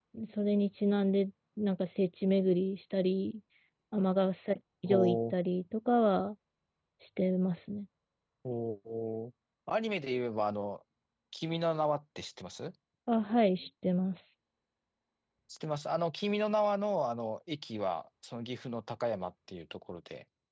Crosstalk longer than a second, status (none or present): none